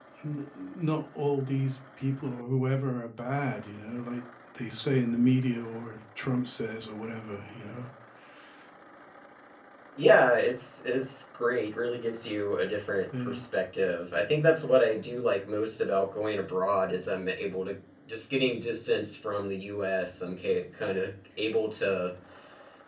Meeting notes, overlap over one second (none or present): none